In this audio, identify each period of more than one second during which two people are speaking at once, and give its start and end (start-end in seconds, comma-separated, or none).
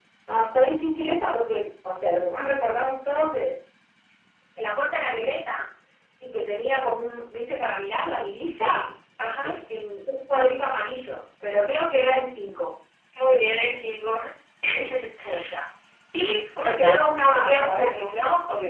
16.6-17.9